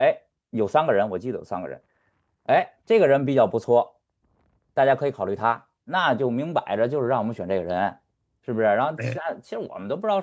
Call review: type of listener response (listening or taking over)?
listening